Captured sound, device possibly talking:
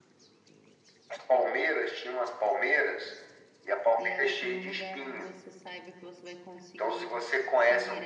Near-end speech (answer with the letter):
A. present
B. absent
A